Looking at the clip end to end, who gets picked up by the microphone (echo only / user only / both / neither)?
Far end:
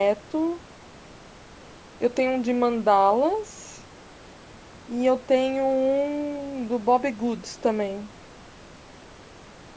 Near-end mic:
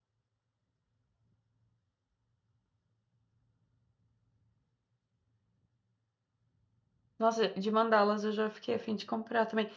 user only